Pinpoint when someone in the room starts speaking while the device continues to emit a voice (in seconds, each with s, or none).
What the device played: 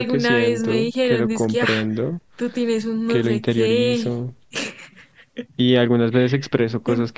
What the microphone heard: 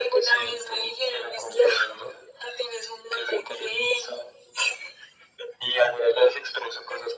none